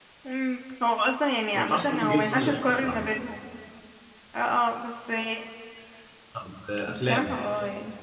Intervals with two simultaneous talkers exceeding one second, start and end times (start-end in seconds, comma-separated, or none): 1.6-3.1